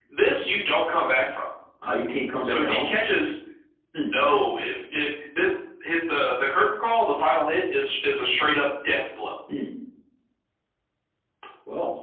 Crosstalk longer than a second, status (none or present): none